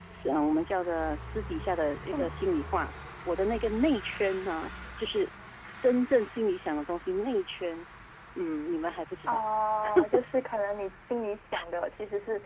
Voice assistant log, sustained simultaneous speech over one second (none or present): none